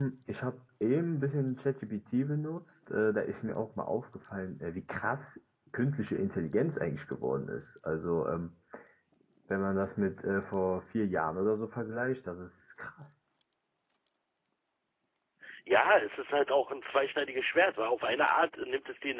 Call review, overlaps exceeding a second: none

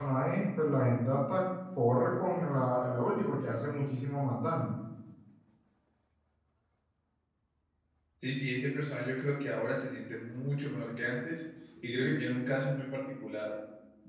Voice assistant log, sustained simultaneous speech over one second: none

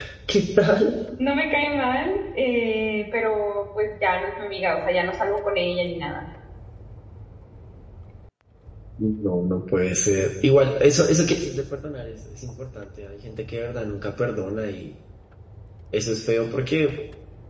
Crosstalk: none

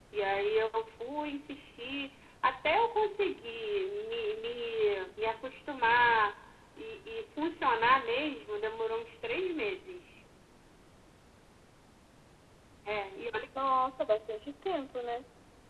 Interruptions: none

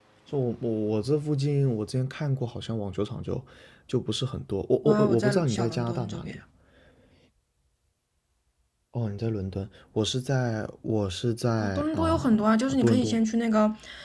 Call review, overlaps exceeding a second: present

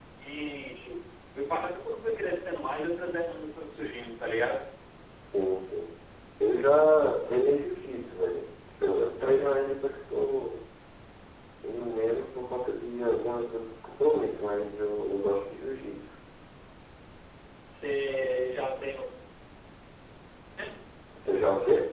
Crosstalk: none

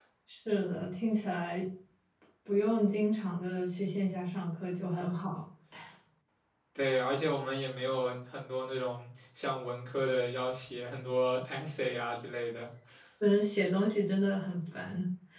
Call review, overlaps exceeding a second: none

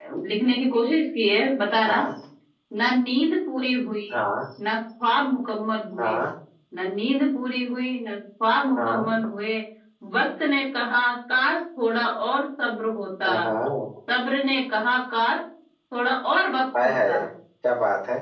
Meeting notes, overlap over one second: none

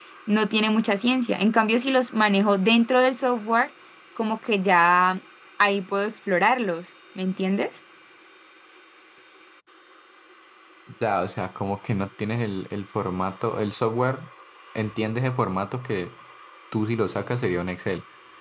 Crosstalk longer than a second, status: none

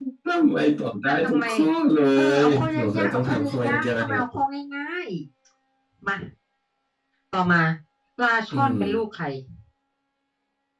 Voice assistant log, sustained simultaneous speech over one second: present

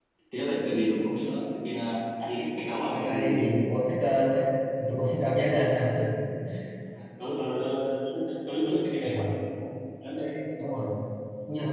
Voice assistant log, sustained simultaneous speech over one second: none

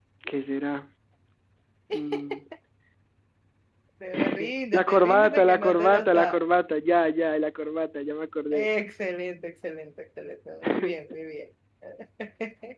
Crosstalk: present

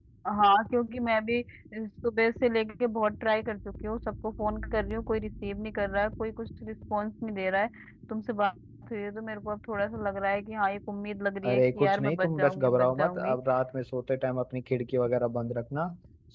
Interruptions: present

